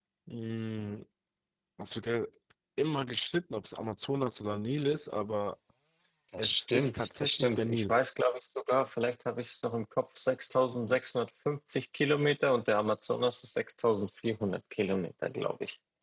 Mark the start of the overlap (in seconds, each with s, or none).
6.4 s